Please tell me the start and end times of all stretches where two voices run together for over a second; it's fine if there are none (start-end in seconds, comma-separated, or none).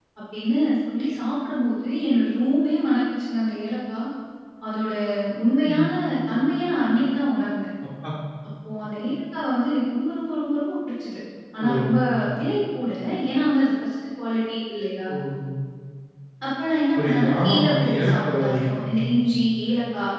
17.0-18.8